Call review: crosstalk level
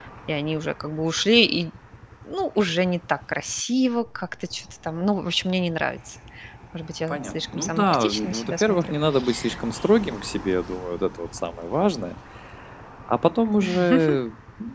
present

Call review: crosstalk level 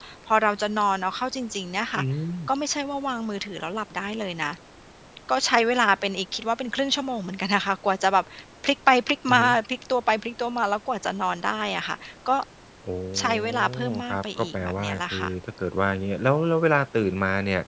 present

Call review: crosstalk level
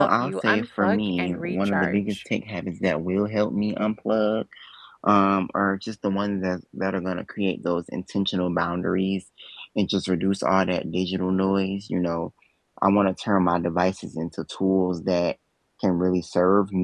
present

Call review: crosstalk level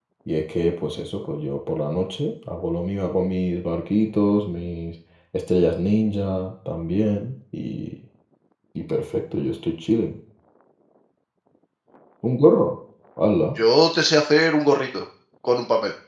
none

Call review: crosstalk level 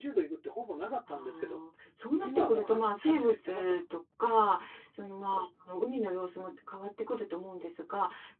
present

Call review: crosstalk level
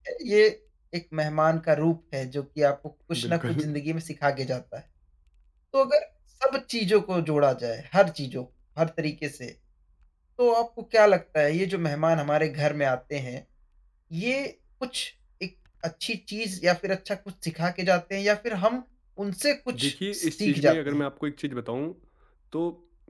present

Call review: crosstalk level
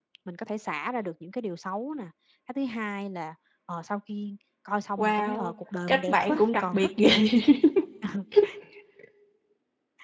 present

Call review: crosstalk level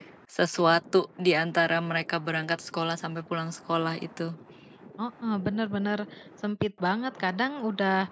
none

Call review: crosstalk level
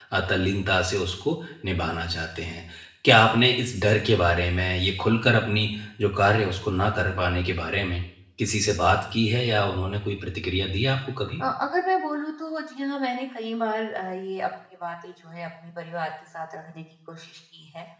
none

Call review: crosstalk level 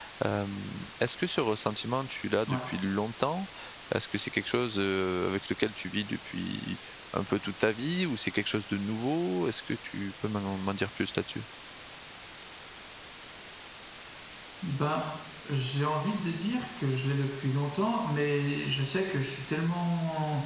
none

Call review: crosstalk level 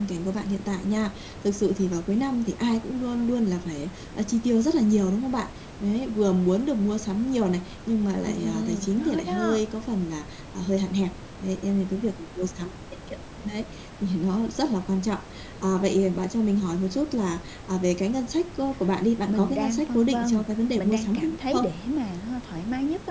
present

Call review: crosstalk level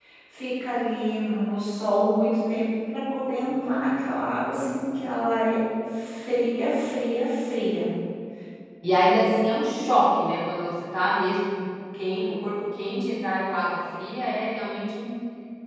none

